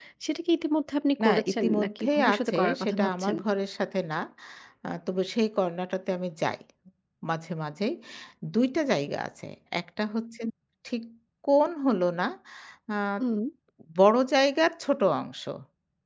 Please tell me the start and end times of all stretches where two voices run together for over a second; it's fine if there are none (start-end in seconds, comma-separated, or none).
1.2-3.4